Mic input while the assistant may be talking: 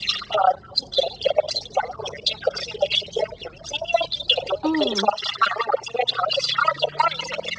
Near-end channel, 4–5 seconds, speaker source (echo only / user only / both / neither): both